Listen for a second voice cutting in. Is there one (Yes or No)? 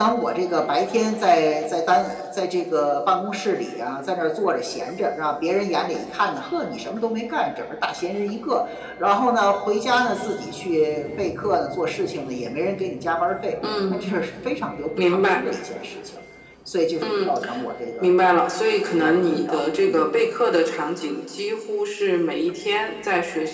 Yes